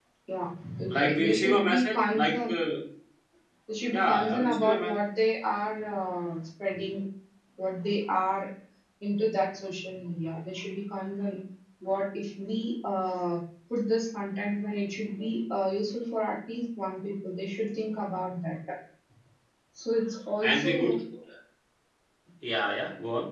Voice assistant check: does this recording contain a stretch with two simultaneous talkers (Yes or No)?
Yes